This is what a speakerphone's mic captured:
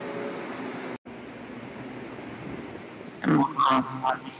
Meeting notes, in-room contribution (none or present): present